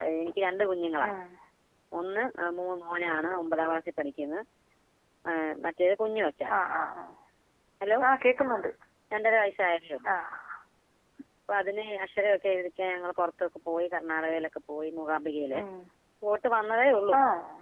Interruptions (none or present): none